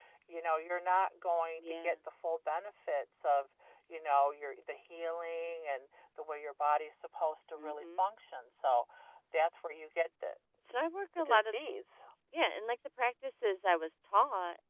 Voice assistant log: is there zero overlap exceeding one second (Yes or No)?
Yes